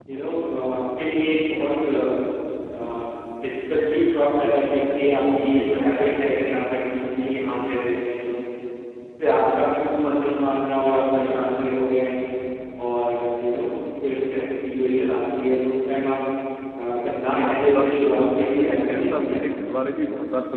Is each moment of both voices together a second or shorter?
No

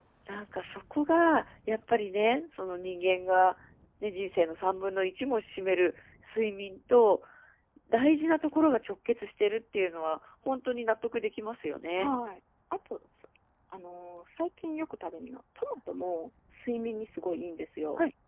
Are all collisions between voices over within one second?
Yes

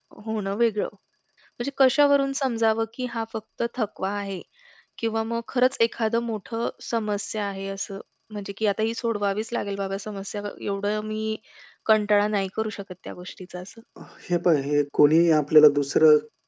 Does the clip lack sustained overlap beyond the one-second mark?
Yes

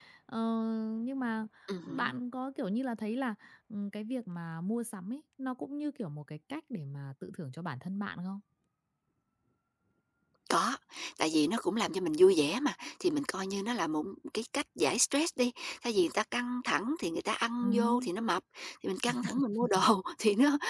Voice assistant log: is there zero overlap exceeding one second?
Yes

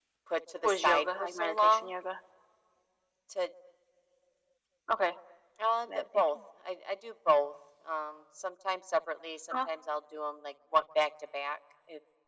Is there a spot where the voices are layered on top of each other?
Yes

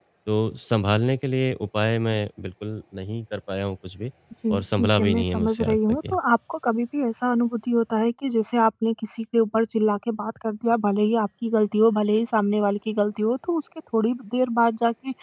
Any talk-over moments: Yes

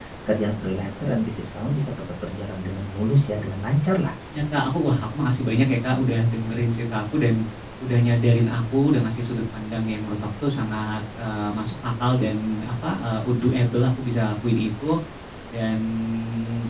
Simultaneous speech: No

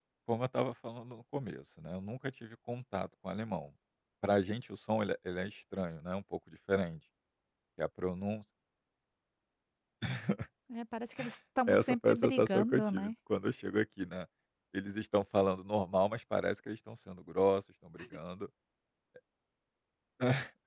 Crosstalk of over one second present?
Yes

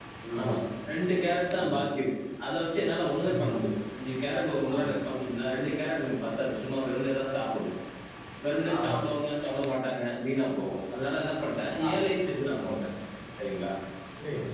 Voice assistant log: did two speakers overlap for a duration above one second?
No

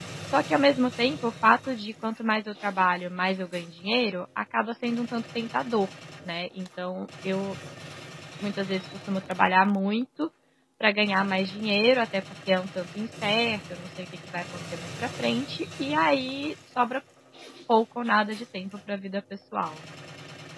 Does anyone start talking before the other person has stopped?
No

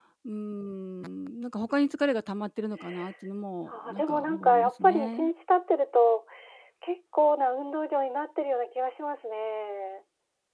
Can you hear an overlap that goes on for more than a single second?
Yes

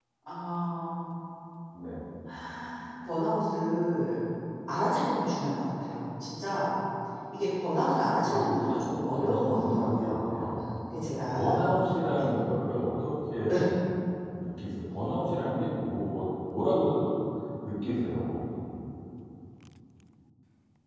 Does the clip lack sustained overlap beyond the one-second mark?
No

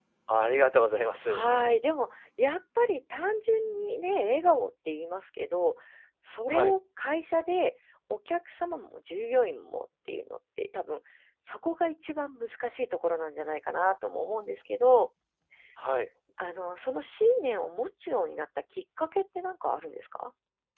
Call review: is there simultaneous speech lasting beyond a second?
No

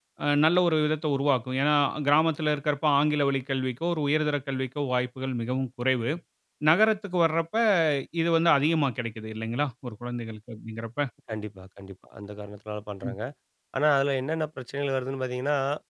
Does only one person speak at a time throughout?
Yes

